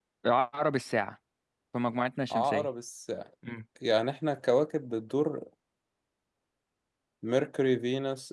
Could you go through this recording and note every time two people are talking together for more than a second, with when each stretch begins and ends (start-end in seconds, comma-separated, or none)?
none